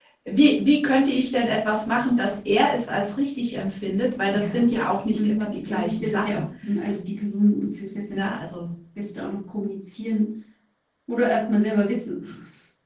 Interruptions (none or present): present